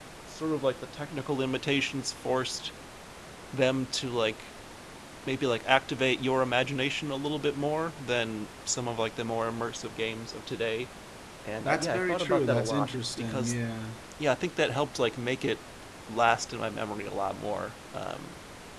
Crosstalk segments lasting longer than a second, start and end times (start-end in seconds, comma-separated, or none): 11.6-13.6